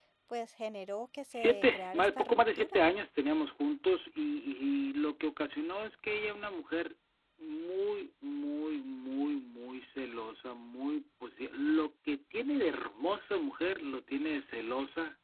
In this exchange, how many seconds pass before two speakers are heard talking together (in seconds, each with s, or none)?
1.3 s